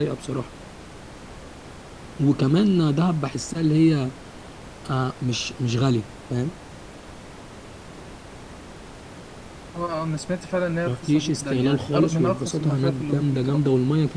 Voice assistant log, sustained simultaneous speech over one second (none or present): present